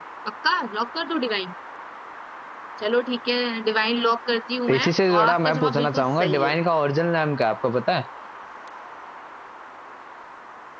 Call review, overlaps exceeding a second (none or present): present